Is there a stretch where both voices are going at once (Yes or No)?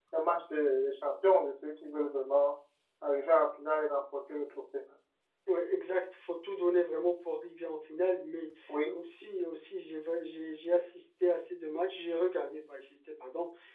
No